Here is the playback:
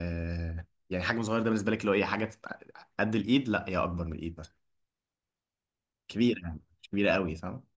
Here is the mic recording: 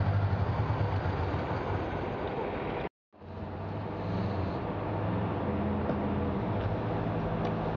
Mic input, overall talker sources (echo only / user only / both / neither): neither